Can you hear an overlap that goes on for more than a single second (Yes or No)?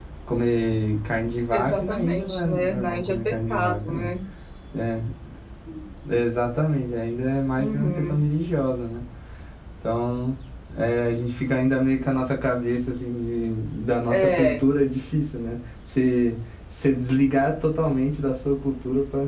Yes